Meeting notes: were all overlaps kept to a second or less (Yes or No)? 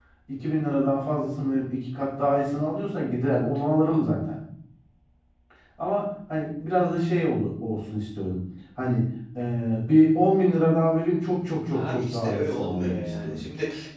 No